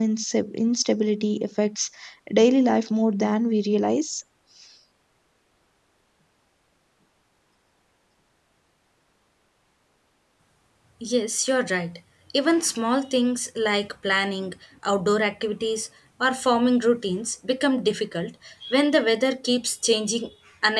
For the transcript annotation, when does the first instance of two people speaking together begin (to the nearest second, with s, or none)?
none